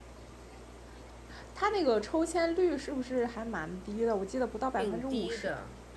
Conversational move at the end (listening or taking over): taking over